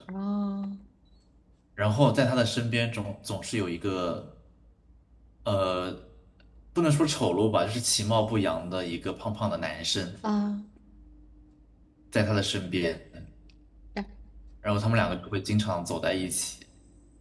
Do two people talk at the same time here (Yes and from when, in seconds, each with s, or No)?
No